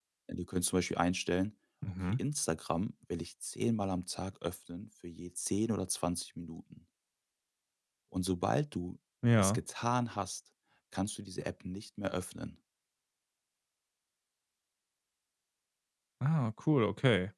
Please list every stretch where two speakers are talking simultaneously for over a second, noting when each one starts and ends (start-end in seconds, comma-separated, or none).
none